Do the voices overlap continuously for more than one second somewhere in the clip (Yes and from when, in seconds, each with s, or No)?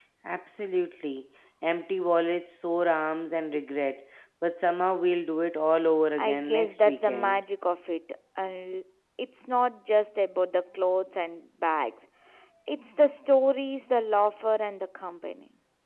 Yes, from 6.2 s